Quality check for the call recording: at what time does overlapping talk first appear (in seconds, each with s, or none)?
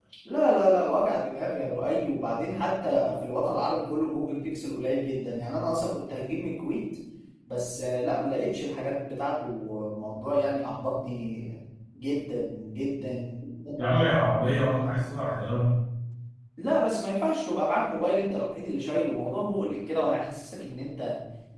none